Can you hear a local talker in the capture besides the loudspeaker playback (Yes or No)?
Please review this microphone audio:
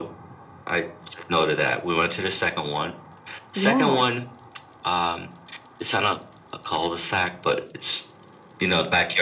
Yes